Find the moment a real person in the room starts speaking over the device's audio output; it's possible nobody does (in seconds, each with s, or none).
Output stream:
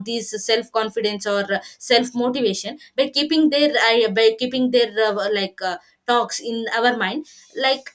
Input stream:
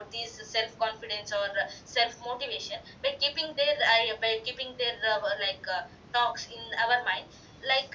none